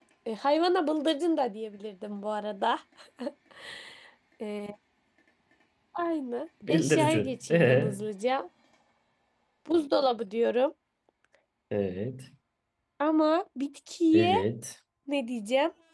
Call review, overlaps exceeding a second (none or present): present